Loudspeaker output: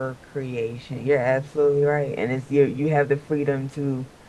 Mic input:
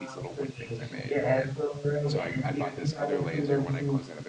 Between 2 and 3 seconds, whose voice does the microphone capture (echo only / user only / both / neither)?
both